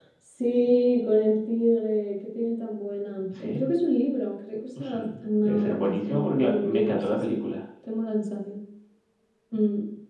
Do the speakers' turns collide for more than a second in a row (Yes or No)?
Yes